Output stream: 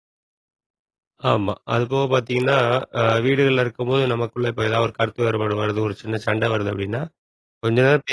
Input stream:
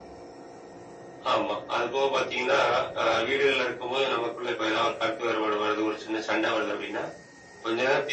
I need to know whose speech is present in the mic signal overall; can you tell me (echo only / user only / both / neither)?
echo only